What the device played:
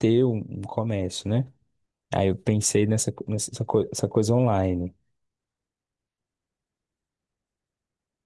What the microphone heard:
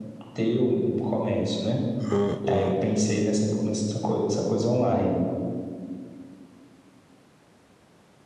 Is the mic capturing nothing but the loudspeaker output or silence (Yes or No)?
No